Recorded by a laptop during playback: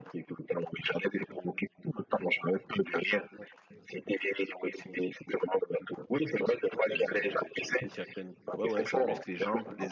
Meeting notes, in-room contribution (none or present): present